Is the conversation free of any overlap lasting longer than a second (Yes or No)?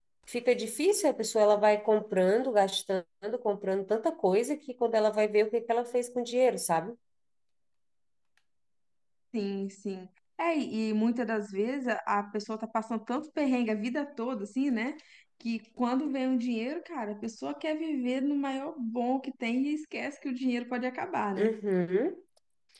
Yes